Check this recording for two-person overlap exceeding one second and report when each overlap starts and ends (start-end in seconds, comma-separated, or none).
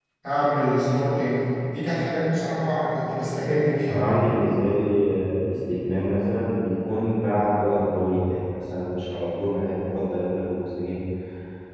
none